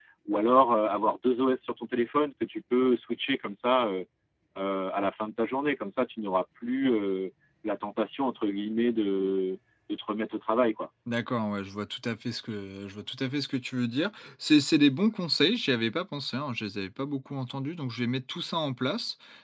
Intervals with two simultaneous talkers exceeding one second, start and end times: none

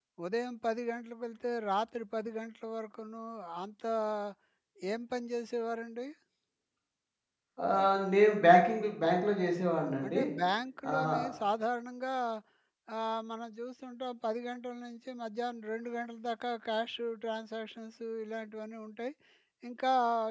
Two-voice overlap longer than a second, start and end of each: none

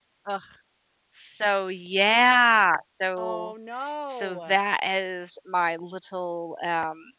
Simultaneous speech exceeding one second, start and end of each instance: none

